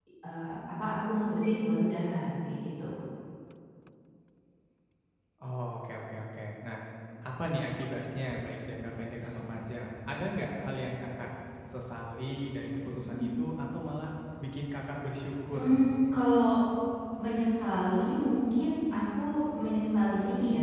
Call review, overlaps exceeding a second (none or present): none